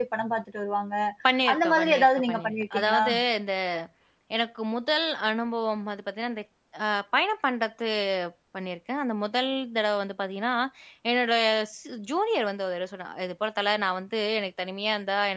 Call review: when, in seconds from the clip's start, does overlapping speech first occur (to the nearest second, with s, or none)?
2 s